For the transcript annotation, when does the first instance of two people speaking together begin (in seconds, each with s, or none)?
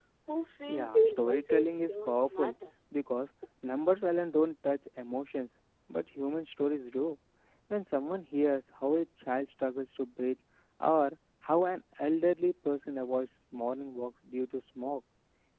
0.7 s